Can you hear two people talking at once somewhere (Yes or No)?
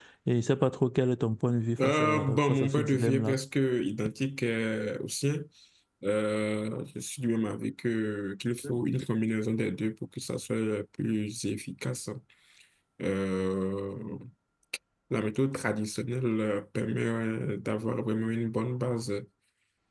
Yes